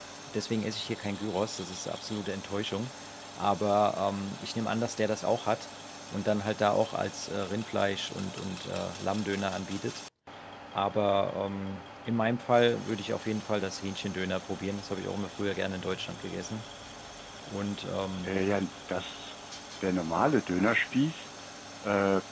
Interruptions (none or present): none